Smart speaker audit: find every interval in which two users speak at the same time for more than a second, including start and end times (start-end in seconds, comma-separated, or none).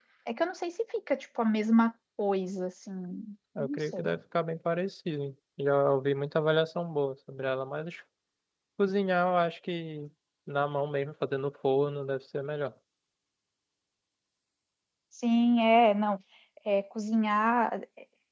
none